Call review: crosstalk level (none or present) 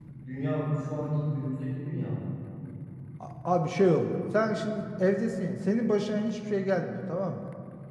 none